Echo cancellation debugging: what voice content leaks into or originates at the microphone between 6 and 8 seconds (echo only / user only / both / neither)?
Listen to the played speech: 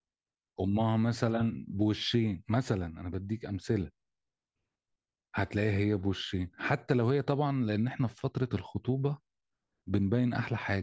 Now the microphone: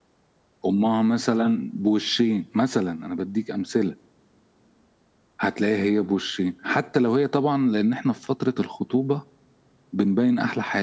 echo only